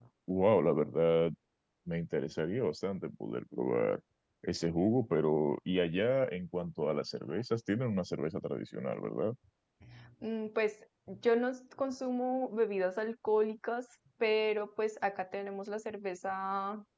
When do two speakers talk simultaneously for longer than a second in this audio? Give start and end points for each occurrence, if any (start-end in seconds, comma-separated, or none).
none